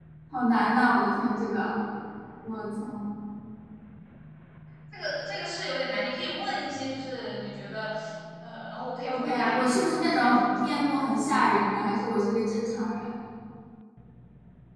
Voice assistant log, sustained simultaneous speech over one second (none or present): present